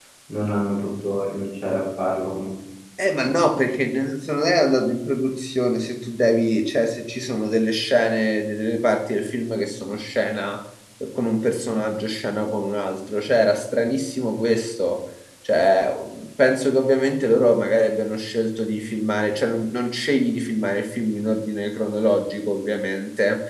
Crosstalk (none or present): none